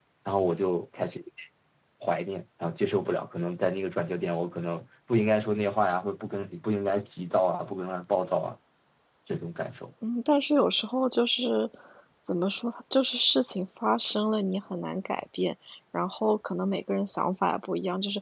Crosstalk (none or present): none